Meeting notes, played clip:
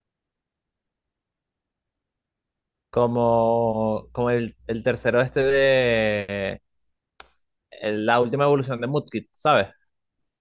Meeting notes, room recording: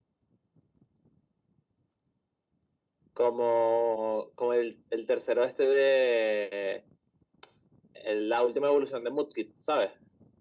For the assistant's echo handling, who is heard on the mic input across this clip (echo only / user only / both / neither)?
echo only